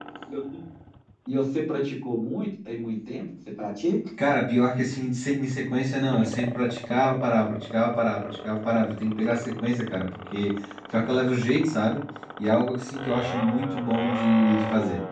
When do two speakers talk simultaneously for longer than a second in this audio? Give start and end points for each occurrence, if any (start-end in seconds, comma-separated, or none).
none